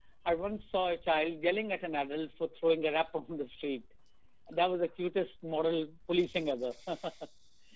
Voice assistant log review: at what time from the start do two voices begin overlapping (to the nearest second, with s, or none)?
none